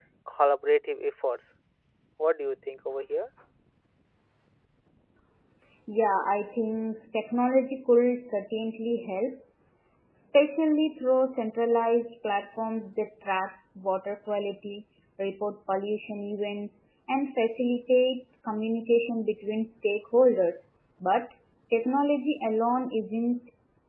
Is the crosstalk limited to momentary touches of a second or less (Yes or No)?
Yes